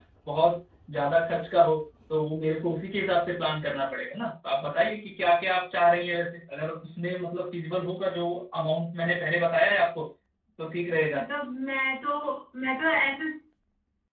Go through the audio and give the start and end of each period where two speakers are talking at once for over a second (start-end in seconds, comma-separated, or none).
none